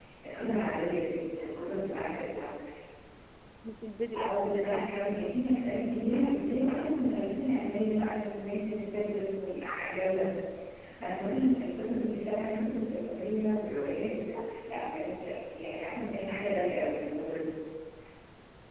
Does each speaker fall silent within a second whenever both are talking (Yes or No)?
No